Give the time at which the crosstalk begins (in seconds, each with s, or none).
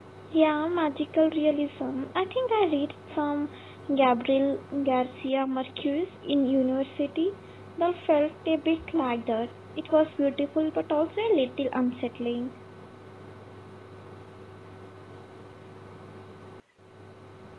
none